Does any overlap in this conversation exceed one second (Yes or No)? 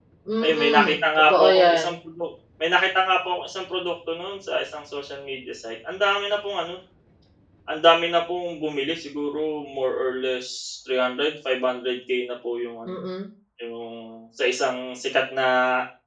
Yes